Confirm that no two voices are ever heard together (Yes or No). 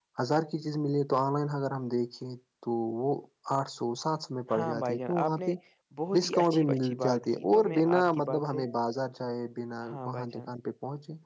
No